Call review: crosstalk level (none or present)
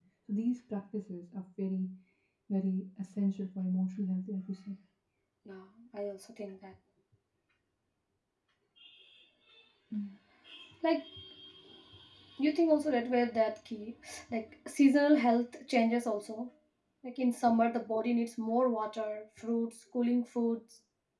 none